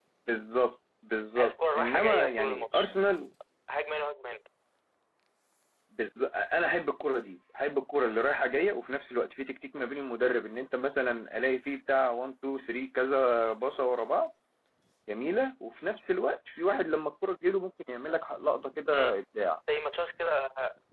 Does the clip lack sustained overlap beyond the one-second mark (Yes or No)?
No